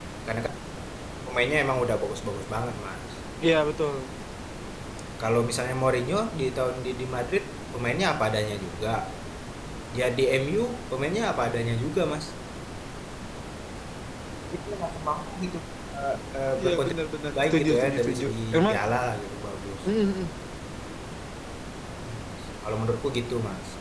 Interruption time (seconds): 17 s

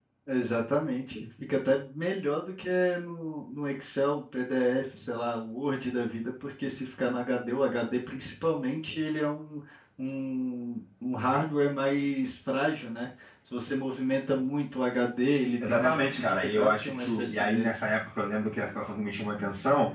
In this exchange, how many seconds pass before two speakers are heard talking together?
16 s

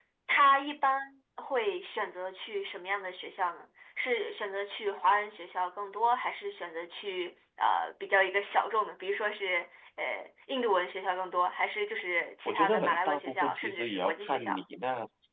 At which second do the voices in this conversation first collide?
12 s

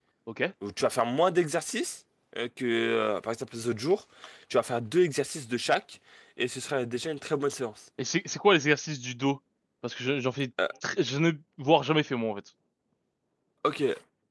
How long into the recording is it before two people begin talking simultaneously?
none

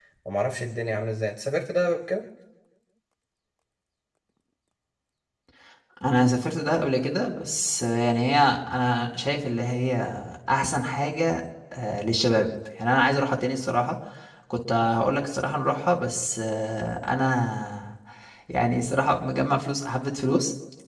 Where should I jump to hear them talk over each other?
none

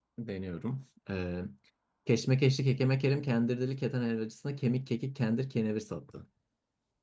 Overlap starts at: none

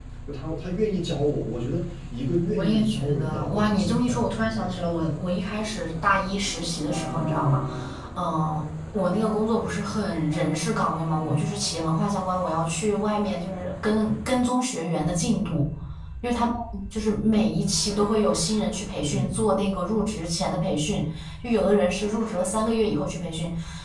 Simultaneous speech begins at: 2 s

